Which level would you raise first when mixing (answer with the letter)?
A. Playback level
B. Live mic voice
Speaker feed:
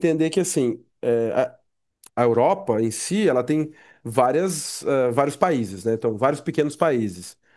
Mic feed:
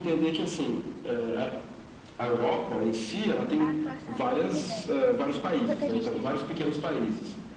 B